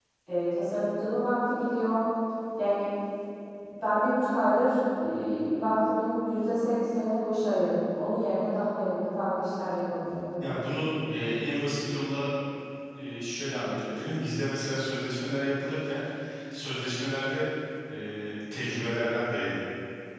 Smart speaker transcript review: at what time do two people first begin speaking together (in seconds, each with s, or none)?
none